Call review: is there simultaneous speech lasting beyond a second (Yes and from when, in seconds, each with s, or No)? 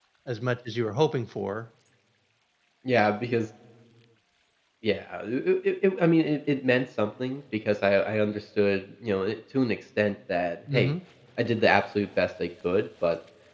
No